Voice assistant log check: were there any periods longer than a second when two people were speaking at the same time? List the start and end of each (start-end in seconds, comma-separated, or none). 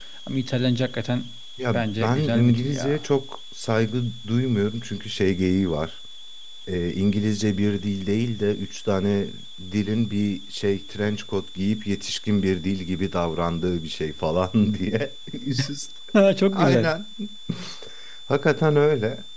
1.7-3.0